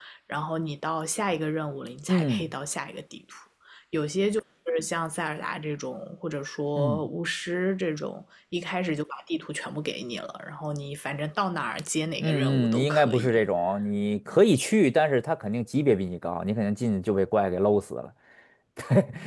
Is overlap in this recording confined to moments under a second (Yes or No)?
No